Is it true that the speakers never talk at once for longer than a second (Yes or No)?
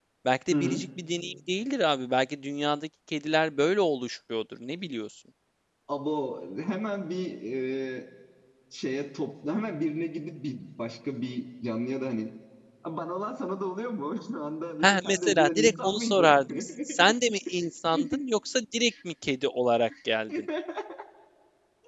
No